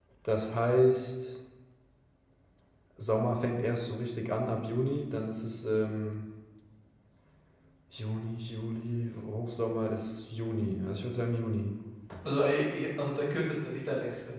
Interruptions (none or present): none